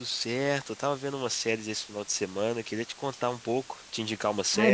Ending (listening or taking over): taking over